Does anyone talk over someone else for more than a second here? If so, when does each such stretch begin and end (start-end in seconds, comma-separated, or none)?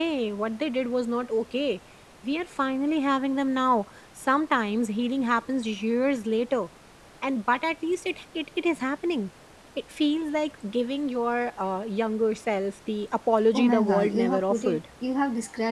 13.5-14.8